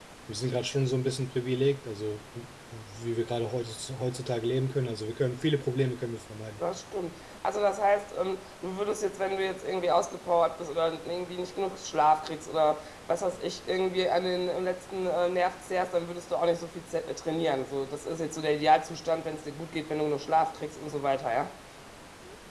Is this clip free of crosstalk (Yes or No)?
Yes